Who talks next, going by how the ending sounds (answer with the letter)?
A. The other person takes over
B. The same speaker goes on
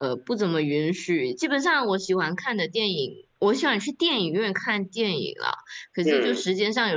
B